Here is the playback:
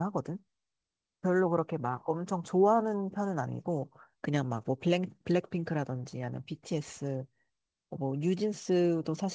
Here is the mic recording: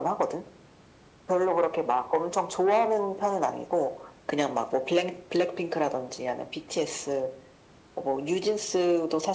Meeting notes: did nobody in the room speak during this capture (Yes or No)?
Yes